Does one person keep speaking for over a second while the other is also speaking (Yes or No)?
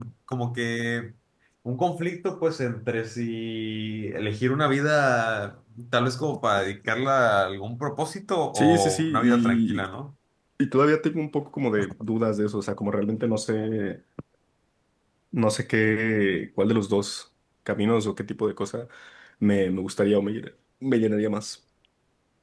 Yes